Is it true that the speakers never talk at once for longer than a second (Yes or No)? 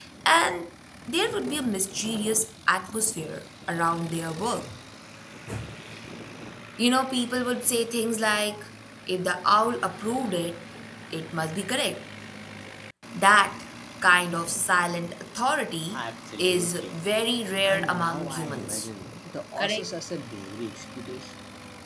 No